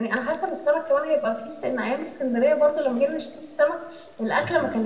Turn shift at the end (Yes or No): No